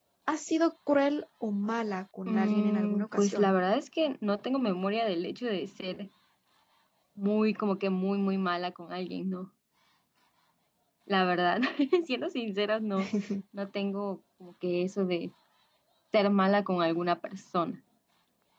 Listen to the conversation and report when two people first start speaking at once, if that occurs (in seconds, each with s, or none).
2.3 s